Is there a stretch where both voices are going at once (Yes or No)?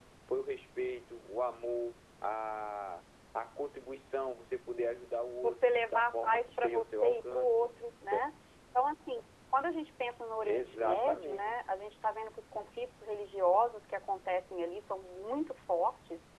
Yes